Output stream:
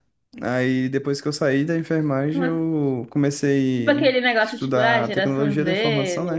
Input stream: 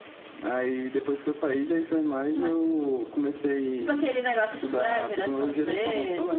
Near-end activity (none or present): none